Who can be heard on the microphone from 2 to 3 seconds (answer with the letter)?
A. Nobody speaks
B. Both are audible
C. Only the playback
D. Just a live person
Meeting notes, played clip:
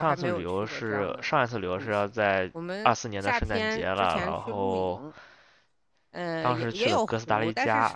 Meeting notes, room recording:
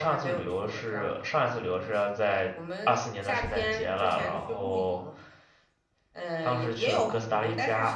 C